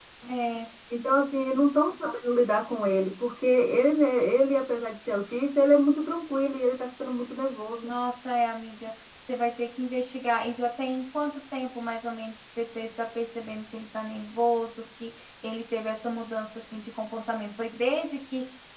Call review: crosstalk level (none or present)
none